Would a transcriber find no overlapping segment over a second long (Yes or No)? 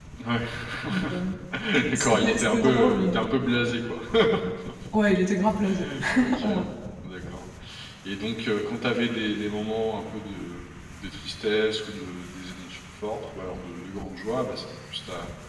No